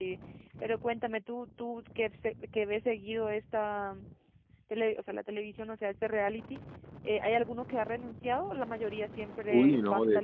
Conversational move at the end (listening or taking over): taking over